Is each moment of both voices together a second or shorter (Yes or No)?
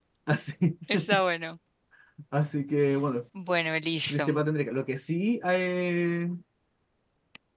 Yes